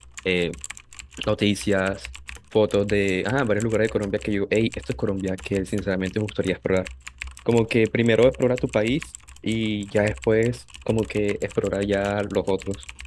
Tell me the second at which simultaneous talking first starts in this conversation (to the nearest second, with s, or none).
none